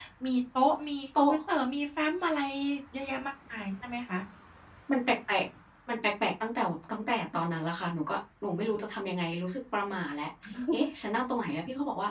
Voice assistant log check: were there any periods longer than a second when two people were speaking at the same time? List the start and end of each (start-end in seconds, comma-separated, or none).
none